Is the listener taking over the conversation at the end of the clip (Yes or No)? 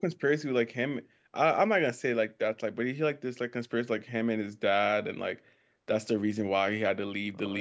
Yes